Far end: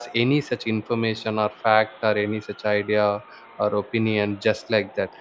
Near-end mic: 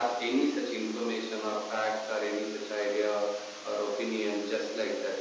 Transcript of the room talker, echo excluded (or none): none